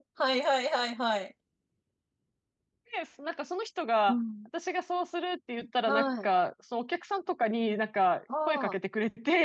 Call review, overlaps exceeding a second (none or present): none